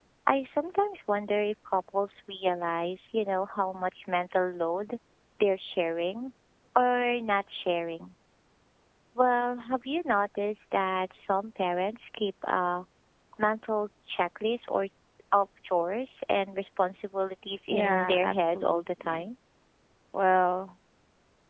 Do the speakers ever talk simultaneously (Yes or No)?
Yes